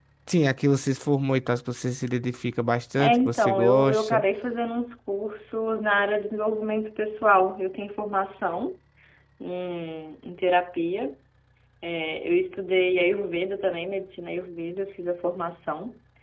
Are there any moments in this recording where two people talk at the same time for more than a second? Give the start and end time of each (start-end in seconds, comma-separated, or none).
3.0-4.2